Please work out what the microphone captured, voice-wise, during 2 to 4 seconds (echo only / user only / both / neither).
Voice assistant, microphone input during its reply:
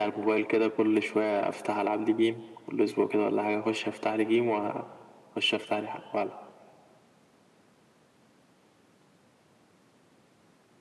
echo only